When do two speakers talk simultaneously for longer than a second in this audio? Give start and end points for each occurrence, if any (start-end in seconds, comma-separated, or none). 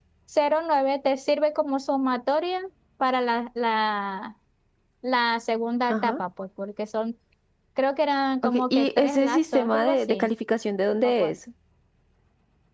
8.4-10.3